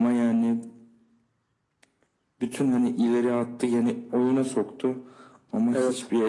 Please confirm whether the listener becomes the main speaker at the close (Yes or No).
No